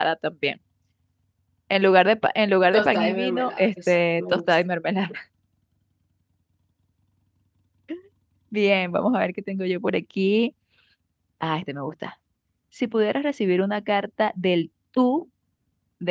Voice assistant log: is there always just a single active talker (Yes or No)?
No